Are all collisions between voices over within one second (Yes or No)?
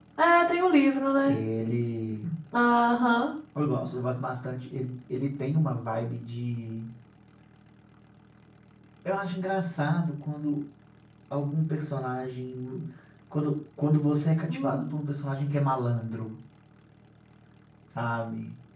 Yes